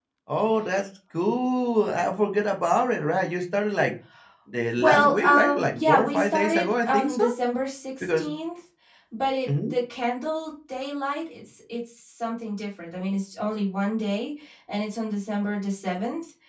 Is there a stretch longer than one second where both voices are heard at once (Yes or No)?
Yes